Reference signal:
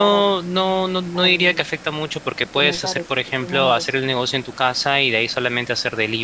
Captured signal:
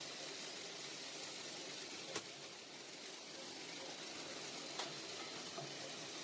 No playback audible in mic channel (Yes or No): Yes